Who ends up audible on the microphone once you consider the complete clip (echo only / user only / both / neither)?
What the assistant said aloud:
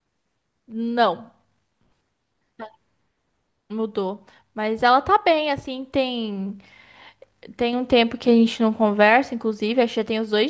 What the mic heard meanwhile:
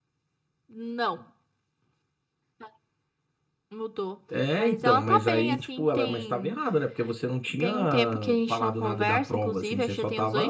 both